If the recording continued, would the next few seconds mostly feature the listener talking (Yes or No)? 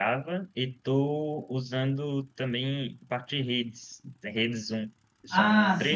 Yes